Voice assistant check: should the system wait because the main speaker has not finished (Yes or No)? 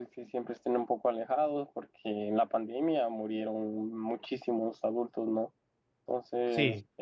No